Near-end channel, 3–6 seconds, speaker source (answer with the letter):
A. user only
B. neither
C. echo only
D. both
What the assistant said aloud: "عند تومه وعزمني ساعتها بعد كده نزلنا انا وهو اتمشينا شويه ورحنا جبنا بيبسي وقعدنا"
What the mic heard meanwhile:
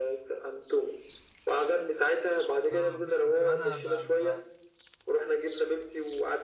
D